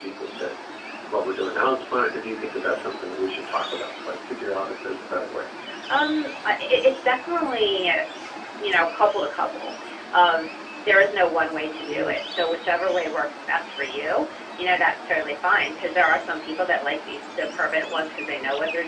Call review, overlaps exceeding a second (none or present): none